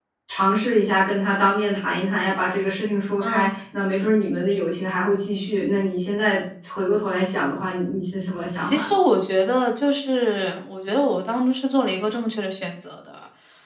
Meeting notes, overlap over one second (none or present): none